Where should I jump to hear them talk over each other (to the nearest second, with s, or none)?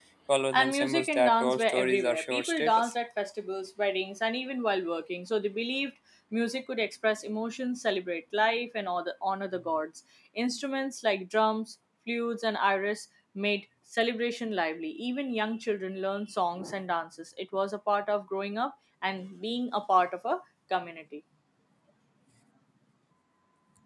1 s